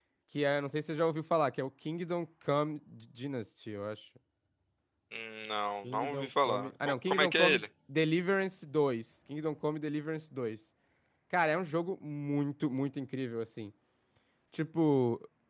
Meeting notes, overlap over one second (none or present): present